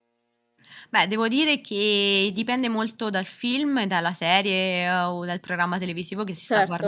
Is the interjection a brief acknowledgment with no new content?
Yes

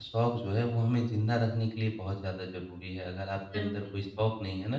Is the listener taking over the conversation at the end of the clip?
No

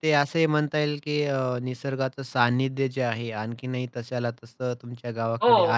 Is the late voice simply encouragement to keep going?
No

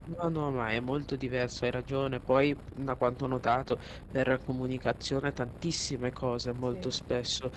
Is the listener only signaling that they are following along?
Yes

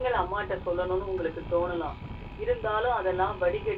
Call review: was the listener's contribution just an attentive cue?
Yes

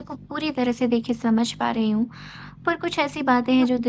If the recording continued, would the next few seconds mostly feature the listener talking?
No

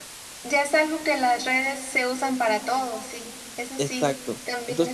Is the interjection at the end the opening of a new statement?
Yes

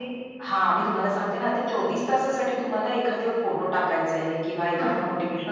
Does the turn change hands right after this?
No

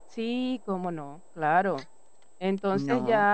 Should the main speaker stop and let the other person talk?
No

